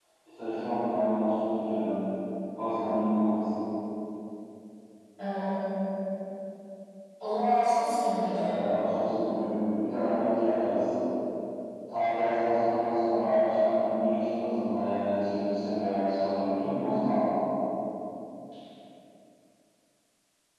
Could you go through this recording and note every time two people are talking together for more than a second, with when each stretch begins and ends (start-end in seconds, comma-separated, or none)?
none